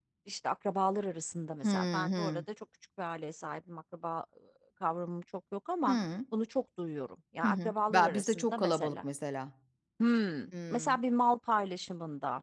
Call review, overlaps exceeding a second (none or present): present